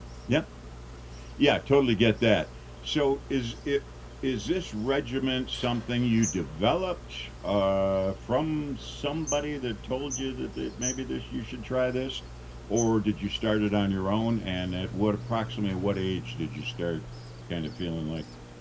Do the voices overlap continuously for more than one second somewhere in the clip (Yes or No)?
No